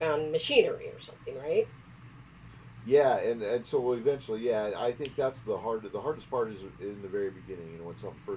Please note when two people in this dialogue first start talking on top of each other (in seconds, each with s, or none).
none